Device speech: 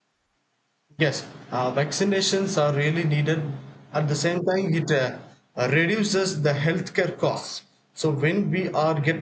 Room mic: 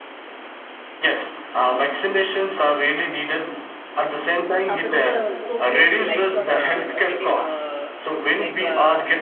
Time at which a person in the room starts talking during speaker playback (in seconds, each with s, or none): 4.7 s